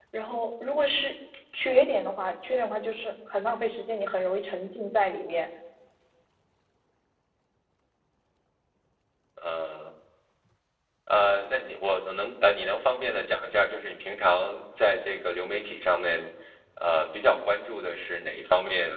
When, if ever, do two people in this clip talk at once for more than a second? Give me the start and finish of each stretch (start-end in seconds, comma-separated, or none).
none